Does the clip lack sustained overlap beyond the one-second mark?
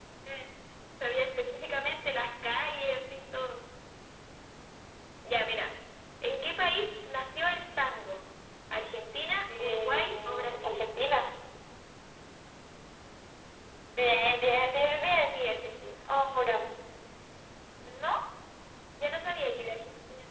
No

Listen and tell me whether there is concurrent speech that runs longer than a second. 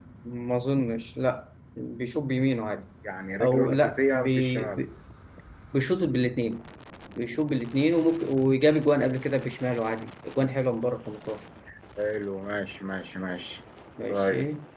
Yes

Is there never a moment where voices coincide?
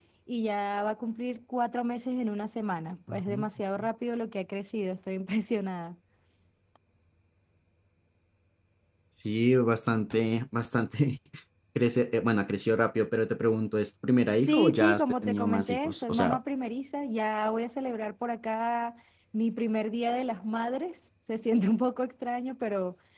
No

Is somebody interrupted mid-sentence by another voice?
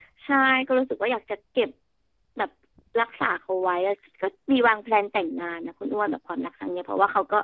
No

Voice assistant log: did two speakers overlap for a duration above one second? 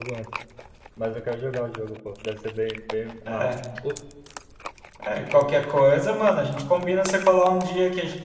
No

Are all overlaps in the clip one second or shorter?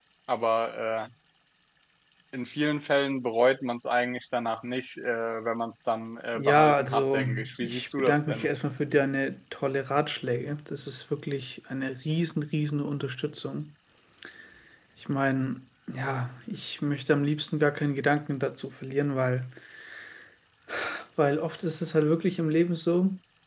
No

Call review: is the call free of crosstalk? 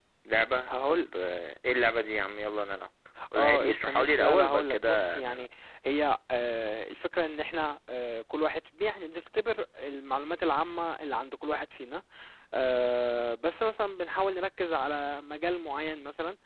No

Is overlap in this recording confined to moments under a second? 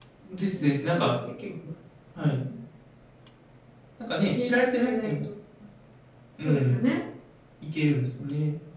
No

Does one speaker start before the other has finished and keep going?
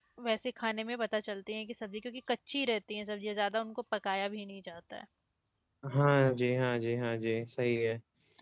No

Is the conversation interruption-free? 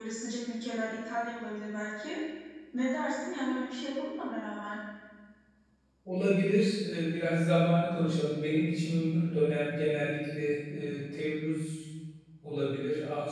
Yes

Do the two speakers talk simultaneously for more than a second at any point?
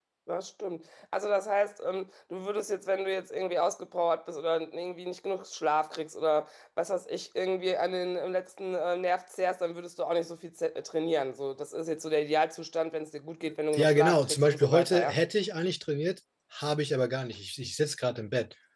Yes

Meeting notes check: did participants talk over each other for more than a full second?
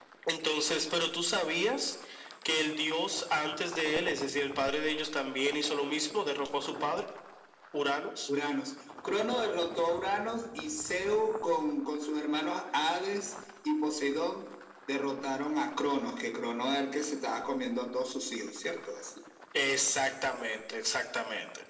No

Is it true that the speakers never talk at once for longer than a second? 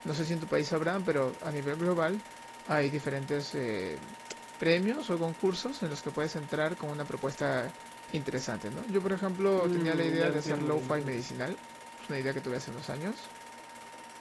No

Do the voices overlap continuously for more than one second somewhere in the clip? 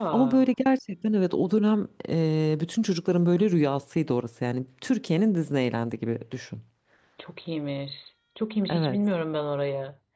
No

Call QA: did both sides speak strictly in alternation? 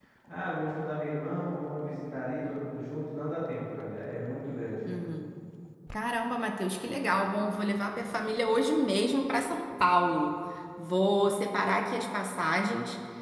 Yes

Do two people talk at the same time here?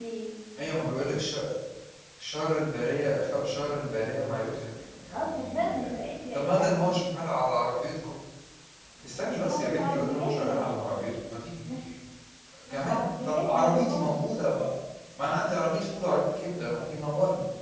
Yes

